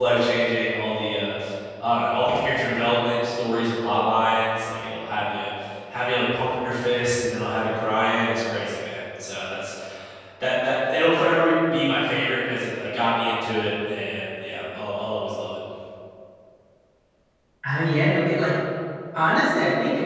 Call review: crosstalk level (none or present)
none